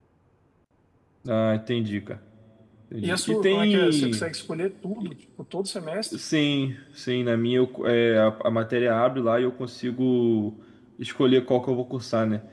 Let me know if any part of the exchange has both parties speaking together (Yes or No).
Yes